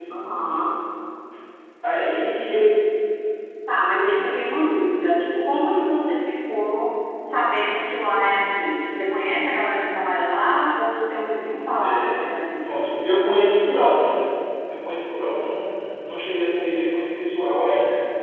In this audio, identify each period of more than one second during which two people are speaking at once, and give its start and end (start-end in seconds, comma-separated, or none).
none